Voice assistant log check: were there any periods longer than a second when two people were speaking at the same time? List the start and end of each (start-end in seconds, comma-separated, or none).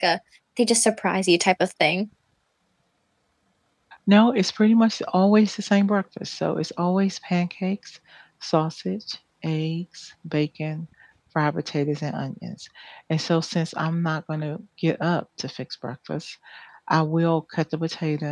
none